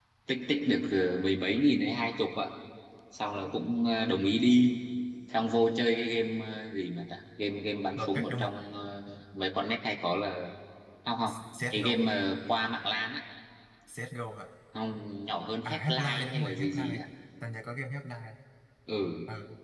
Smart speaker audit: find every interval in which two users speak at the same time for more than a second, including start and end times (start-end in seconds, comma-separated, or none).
15.7-17.0